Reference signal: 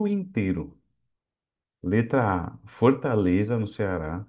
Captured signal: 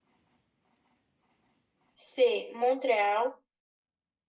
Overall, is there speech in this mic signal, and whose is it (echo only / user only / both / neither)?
user only